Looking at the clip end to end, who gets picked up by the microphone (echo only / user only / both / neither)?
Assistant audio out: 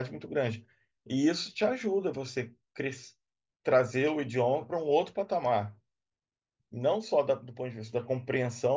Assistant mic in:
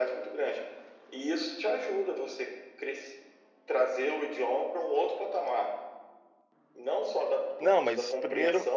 both